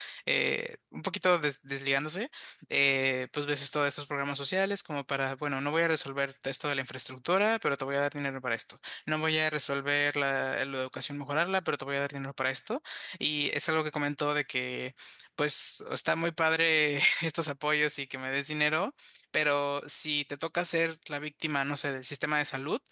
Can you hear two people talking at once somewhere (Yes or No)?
No